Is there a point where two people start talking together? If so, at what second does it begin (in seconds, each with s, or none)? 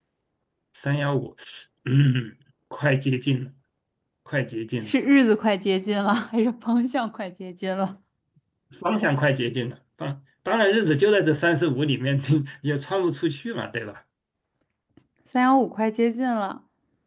none